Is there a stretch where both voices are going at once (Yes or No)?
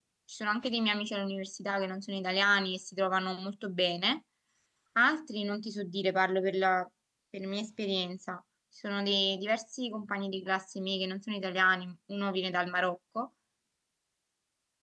No